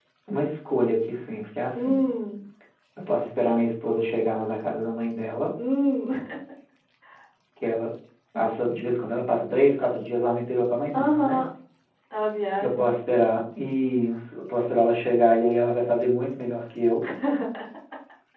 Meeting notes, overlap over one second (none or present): none